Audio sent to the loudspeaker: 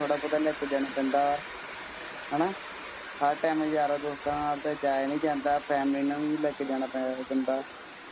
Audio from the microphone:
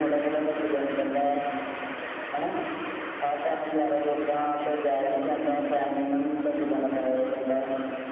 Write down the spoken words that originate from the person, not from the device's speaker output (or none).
none